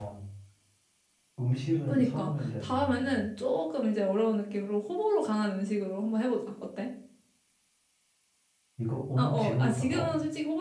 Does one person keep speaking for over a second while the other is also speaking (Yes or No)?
Yes